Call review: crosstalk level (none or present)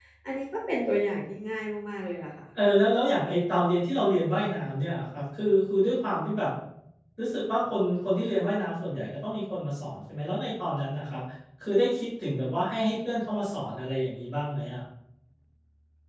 none